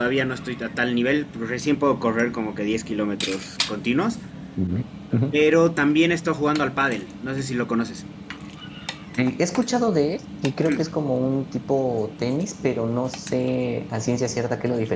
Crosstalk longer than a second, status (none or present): none